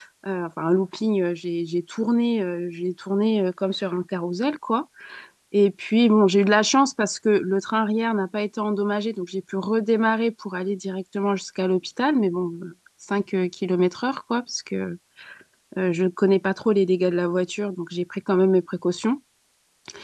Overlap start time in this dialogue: none

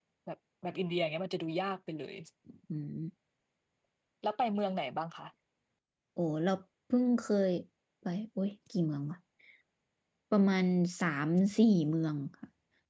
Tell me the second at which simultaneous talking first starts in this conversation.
none

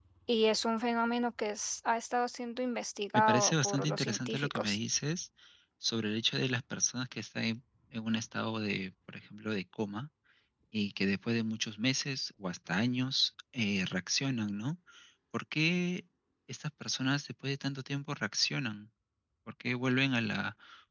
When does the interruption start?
3.1 s

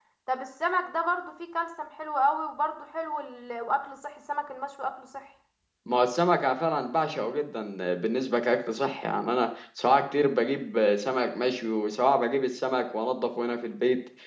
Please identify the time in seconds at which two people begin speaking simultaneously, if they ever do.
none

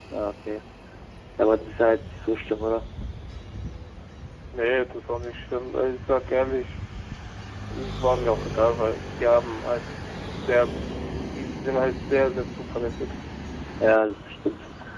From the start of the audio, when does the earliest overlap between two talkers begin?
none

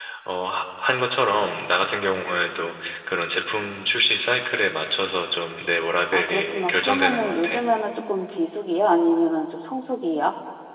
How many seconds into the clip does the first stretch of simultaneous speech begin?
6.1 s

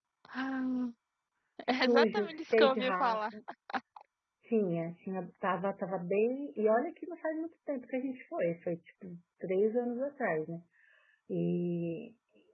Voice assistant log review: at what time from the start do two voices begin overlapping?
1.7 s

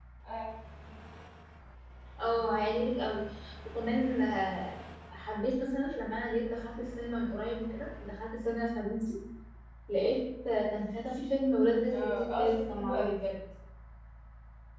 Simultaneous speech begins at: 11.9 s

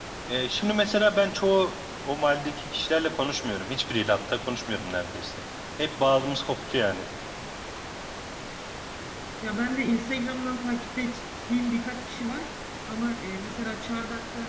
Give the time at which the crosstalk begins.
none

